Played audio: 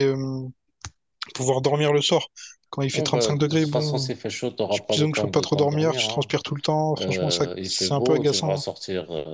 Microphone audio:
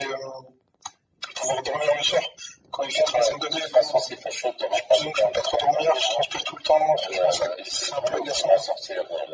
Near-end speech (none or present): none